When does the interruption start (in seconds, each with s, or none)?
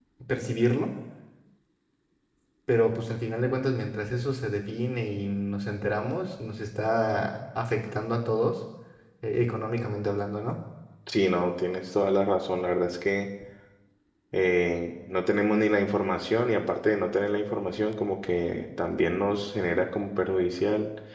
none